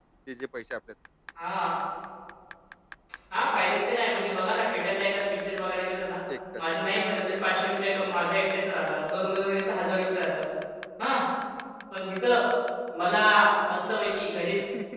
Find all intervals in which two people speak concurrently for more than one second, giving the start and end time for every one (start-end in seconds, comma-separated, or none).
none